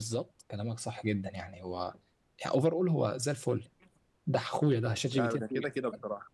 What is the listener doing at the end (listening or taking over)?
taking over